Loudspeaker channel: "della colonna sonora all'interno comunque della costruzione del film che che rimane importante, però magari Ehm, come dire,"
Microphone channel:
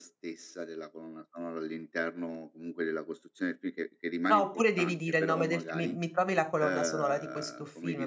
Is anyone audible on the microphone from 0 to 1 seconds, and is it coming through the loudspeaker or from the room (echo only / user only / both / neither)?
echo only